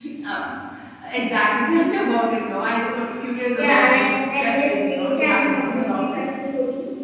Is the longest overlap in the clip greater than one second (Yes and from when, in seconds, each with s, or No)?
Yes, from 3.5 s